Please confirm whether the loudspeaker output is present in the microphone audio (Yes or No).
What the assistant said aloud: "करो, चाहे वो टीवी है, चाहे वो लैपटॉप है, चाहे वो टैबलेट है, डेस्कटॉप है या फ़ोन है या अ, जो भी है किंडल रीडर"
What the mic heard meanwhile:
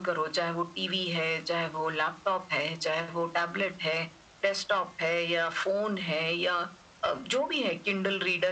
Yes